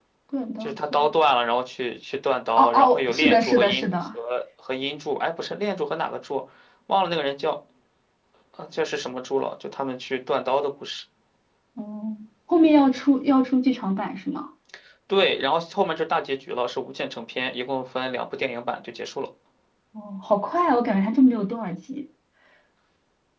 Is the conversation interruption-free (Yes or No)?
No